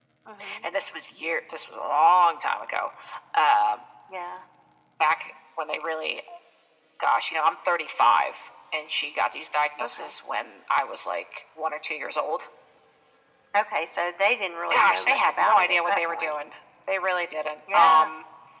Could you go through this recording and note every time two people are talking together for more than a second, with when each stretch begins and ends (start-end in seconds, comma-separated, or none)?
14.7-16.4